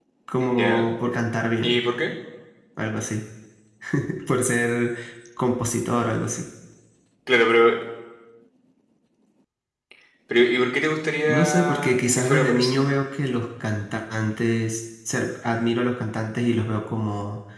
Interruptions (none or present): present